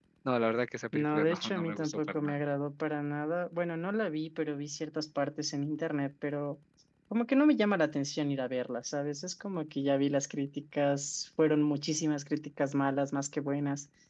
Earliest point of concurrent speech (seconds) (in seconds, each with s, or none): 0.9 s